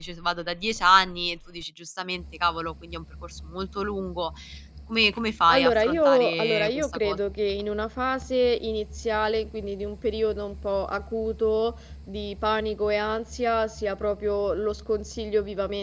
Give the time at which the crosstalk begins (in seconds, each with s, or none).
5.5 s